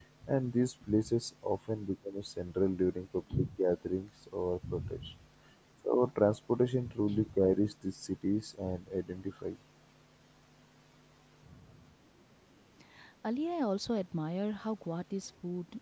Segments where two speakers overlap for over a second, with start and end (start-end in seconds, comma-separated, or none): none